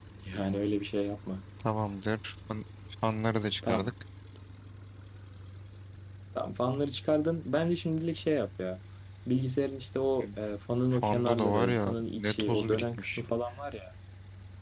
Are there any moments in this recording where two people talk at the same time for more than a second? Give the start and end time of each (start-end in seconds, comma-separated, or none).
10.9-13.2